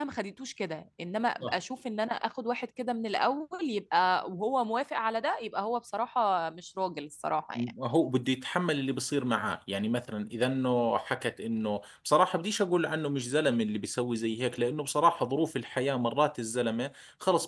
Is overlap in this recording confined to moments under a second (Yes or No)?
Yes